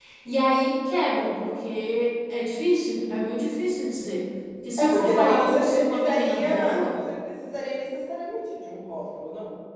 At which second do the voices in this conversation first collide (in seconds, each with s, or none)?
4.8 s